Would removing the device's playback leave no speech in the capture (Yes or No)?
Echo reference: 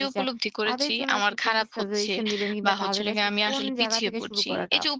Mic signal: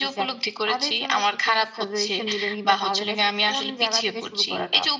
Yes